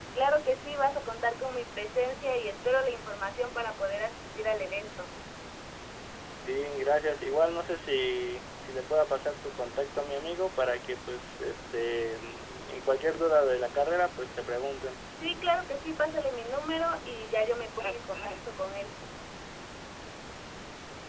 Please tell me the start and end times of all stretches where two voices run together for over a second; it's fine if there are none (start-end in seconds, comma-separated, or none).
none